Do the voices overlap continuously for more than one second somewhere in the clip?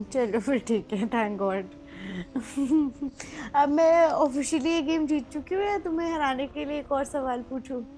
No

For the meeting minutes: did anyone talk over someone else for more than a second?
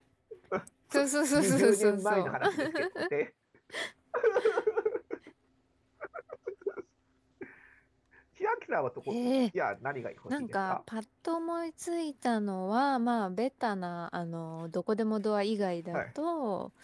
Yes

